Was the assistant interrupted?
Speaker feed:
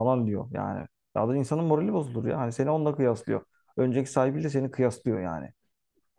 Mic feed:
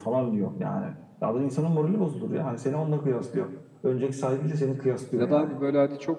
Yes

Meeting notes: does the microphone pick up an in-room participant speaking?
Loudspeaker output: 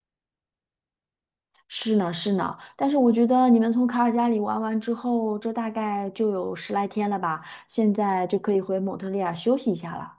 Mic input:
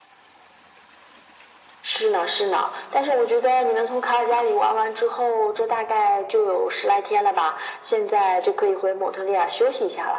No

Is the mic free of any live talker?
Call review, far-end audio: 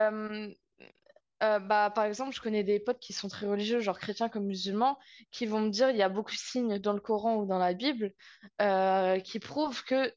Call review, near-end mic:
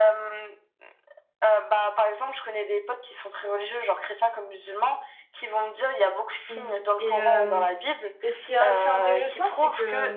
No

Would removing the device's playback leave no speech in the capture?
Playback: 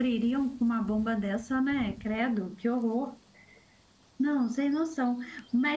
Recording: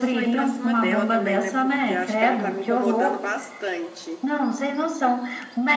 No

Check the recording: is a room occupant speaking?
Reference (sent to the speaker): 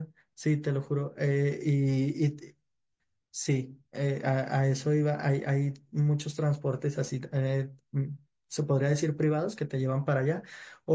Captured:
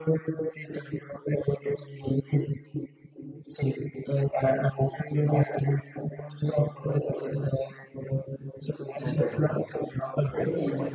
Yes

